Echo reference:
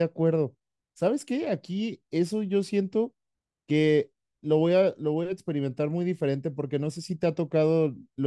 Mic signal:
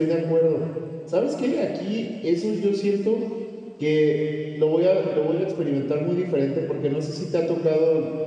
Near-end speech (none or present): none